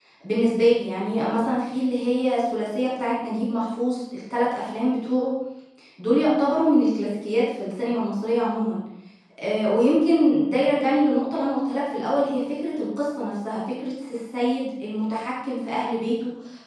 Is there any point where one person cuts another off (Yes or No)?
No